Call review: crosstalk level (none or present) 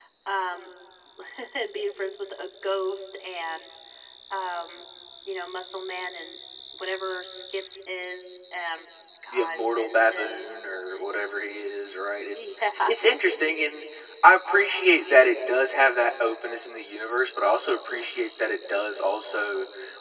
present